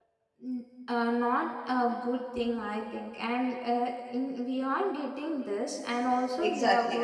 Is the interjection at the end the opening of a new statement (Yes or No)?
Yes